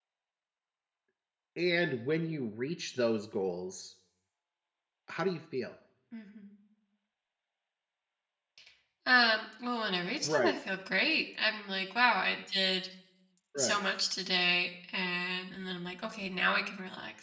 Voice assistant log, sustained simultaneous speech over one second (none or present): none